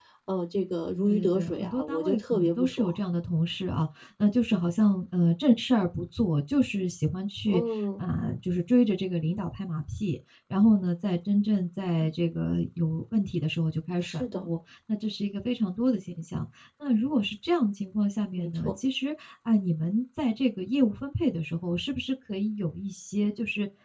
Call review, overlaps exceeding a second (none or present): present